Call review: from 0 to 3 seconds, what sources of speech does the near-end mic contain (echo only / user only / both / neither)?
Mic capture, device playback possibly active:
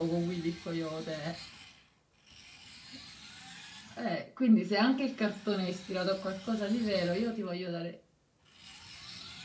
user only